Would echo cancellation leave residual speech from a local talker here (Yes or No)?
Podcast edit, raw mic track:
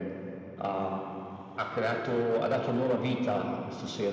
No